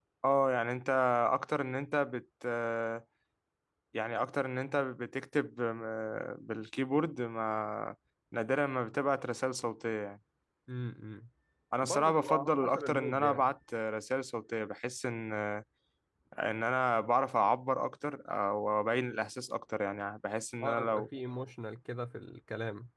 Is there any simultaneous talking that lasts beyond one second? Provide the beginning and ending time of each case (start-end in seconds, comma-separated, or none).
11.8-13.5